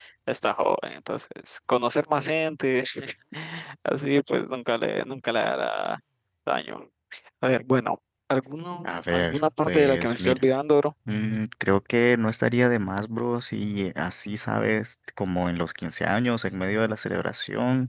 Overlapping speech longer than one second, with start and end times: 8.8-10.5

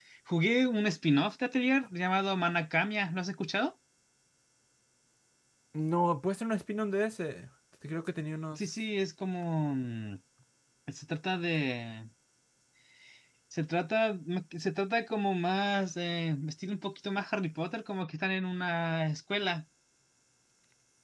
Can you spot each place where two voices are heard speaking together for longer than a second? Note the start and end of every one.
none

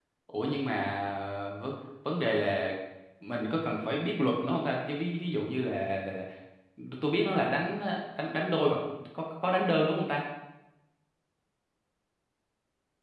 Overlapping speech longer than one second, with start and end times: none

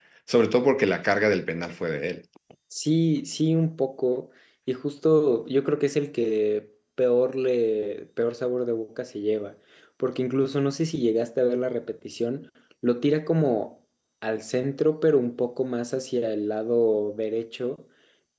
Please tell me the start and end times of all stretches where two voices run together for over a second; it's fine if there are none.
none

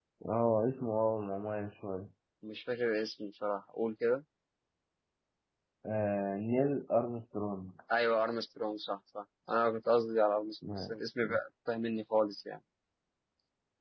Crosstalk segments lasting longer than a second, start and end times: none

